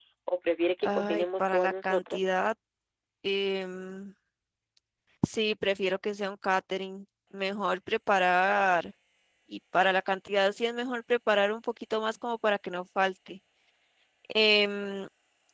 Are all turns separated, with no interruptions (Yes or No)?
No